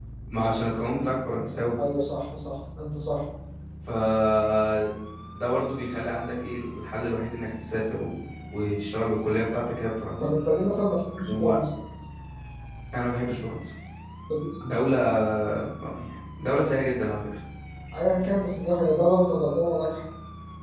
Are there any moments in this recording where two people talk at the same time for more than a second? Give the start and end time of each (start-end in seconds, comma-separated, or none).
none